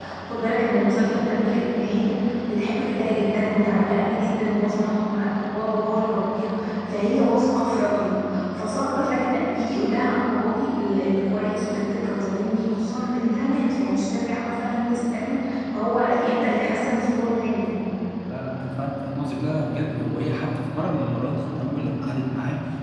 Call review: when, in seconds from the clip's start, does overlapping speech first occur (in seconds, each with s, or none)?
none